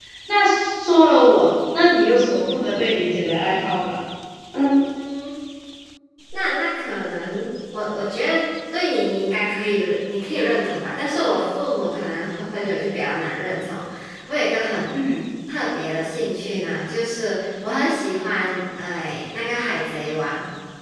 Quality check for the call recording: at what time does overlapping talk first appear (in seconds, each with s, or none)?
none